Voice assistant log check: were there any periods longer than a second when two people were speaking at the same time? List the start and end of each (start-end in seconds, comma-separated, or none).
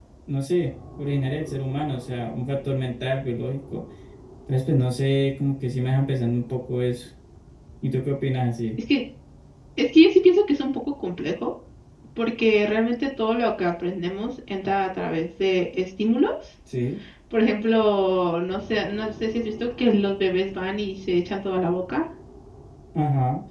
none